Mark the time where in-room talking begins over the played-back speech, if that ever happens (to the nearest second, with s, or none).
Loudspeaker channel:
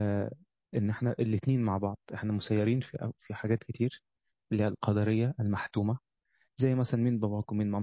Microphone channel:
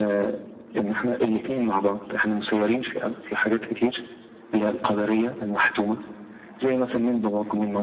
none